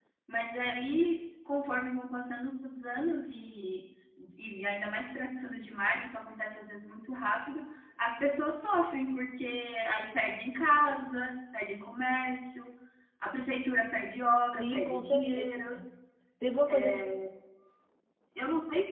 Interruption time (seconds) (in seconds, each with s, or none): 14.5 s